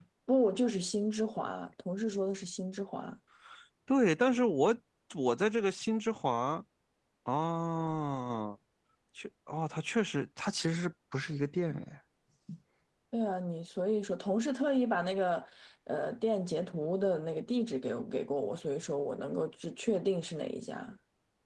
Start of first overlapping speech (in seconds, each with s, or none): none